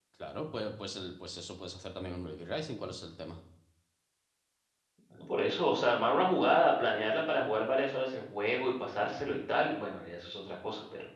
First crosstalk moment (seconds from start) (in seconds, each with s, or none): none